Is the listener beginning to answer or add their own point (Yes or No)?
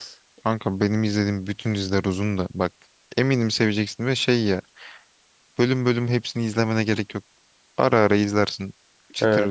Yes